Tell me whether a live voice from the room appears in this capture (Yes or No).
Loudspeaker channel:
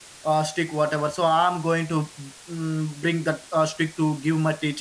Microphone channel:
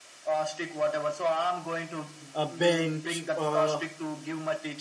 Yes